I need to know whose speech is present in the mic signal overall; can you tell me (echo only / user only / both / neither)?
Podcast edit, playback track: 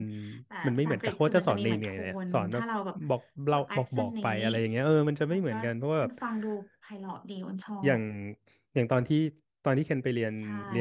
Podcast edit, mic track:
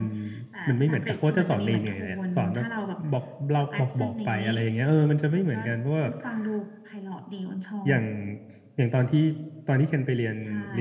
echo only